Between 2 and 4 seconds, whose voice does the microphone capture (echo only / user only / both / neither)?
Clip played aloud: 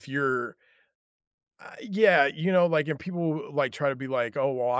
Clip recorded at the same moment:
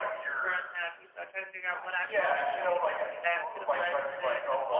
both